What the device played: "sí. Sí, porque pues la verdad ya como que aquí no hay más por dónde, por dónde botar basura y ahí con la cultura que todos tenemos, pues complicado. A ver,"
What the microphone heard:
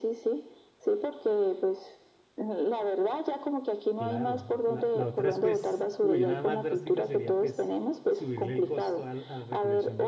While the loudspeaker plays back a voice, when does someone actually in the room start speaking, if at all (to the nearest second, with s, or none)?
4 s